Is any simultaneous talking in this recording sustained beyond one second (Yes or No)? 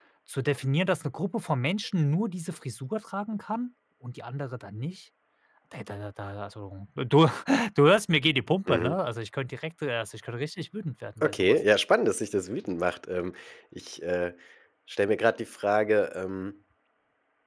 No